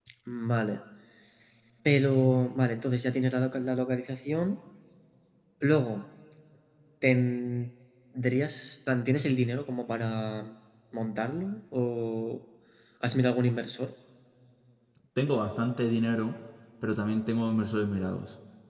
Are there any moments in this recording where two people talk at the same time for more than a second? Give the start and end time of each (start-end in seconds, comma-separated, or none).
none